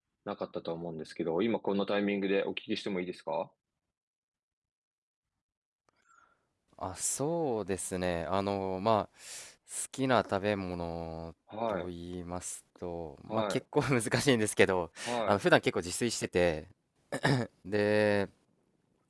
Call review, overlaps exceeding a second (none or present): none